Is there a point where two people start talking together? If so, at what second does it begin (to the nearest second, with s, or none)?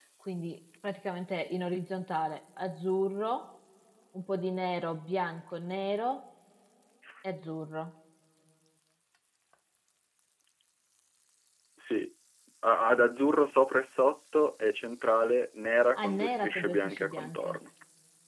16 s